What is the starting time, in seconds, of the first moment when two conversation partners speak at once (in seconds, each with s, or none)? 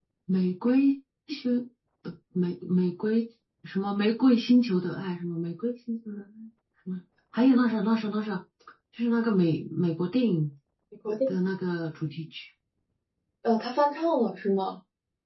none